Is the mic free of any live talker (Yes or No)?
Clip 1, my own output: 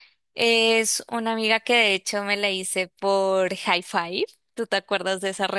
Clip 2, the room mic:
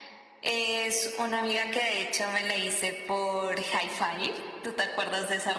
Yes